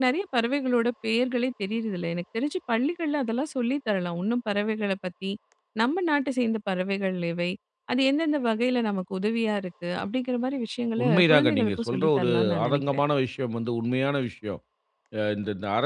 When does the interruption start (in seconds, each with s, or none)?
11.0 s